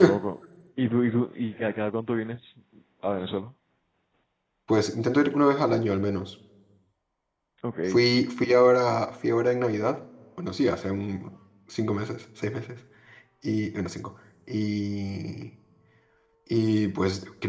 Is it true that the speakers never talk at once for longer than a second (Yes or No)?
Yes